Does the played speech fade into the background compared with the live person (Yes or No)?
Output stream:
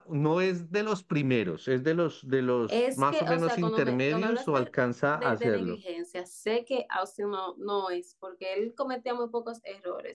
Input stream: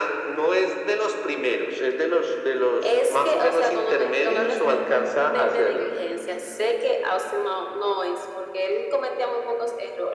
No